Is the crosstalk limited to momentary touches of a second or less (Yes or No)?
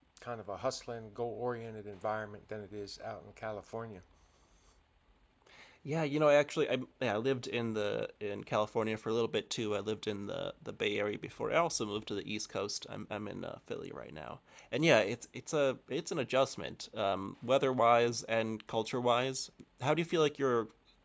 Yes